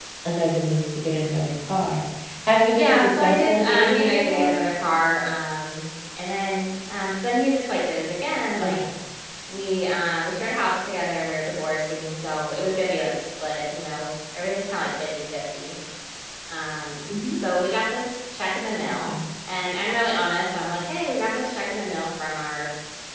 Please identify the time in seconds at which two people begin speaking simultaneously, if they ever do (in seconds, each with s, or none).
2.8 s